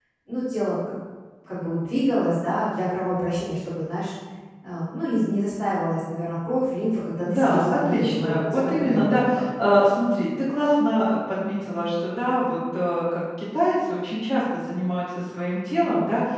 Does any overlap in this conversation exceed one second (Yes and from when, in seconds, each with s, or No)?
Yes, from 7.2 s